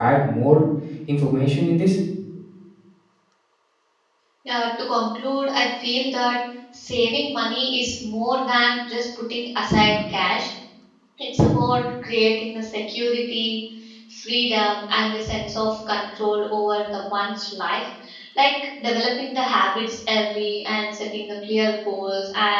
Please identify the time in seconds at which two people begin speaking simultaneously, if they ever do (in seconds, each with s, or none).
none